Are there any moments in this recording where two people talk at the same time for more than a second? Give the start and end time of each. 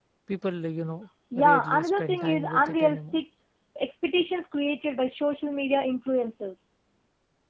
1.4-3.2

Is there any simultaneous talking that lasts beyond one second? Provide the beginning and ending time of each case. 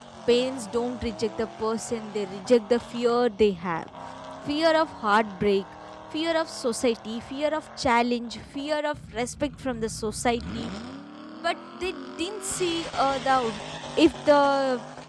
none

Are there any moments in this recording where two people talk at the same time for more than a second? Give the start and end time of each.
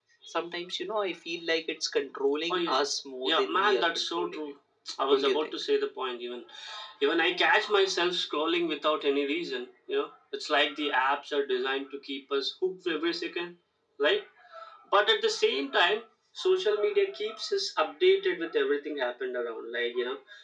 3.2-4.5

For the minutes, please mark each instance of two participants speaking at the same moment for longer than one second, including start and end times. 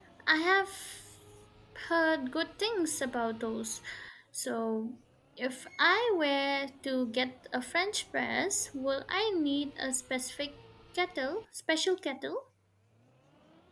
none

